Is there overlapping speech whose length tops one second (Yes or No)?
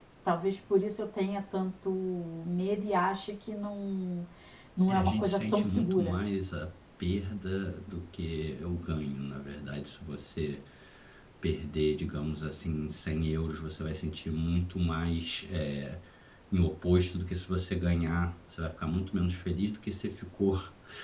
Yes